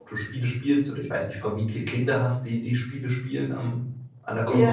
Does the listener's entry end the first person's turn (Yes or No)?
Yes